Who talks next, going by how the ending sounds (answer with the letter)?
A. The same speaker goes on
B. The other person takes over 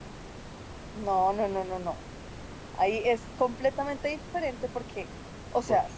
A